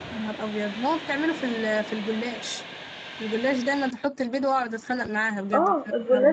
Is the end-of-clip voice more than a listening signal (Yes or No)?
Yes